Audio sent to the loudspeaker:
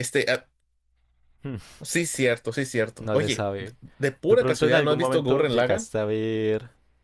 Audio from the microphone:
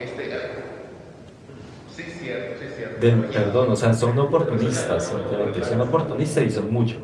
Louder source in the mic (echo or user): user